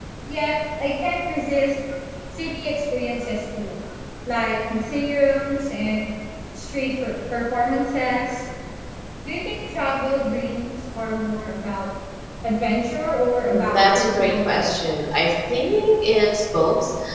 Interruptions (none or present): present